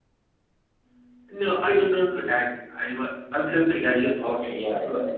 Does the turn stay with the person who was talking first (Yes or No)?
No